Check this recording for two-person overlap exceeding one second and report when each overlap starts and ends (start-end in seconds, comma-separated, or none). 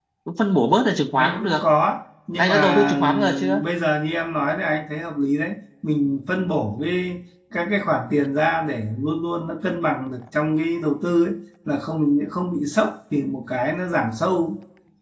2.4-3.6